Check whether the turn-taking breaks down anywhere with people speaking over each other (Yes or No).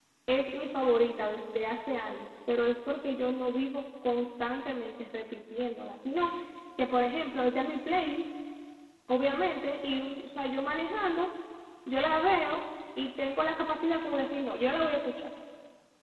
No